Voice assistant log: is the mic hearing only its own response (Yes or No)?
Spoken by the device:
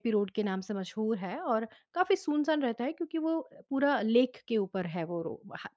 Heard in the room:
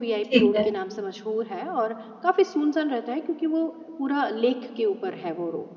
No